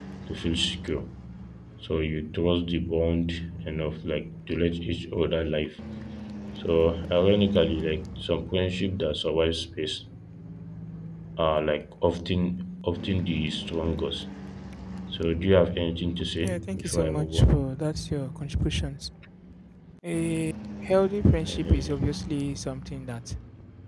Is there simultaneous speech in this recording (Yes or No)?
Yes